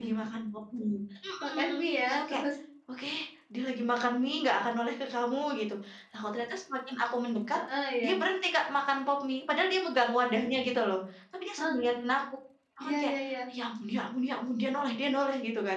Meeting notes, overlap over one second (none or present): none